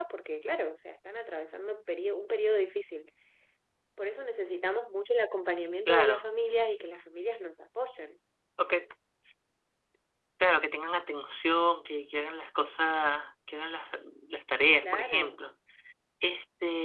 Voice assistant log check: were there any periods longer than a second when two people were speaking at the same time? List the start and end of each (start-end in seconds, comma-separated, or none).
none